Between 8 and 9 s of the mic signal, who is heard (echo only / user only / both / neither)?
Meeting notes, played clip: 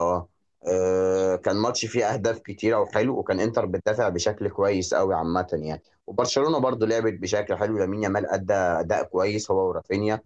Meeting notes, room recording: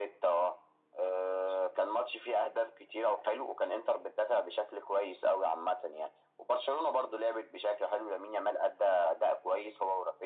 echo only